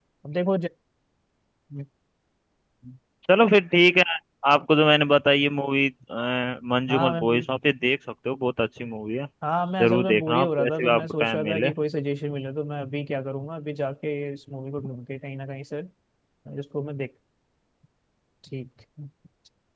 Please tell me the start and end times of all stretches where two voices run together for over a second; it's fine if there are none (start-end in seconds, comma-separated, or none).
9.8-11.7